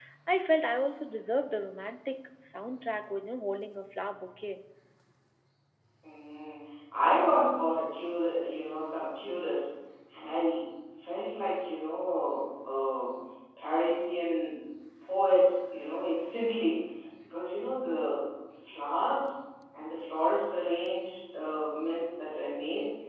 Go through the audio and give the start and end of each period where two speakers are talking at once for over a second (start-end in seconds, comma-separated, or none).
none